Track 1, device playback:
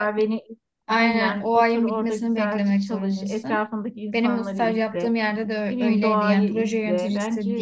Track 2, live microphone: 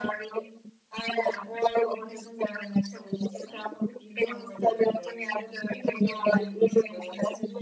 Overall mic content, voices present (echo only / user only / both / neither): echo only